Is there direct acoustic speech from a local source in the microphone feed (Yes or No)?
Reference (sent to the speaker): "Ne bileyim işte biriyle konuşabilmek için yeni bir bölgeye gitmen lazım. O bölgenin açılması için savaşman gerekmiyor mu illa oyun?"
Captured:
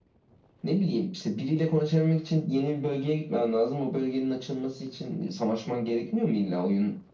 No